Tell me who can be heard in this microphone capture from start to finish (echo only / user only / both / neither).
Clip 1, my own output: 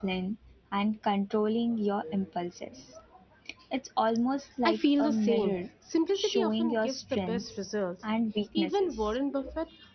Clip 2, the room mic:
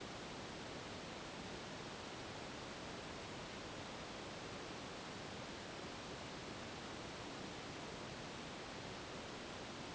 neither